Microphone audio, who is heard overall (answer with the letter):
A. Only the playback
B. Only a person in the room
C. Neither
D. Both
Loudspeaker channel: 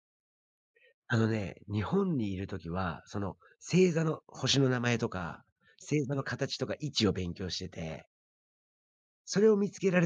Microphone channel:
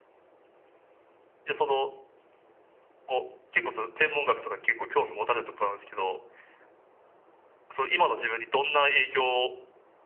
B